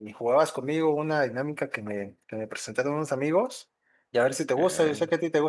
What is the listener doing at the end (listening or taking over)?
listening